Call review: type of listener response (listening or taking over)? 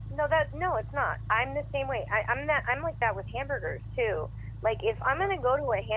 listening